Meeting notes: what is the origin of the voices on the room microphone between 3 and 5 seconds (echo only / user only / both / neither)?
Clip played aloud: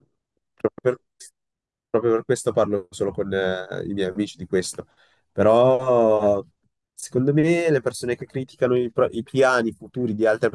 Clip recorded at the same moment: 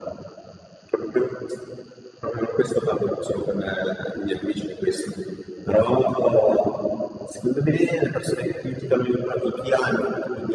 echo only